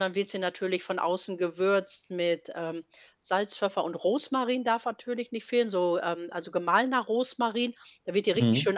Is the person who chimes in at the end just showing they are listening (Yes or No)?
Yes